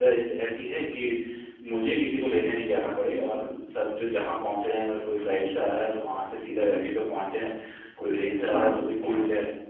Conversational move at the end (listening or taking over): taking over